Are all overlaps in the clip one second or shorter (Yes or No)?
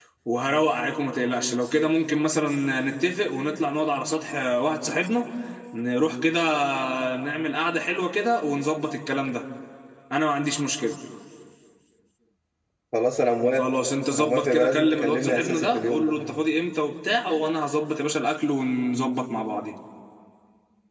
No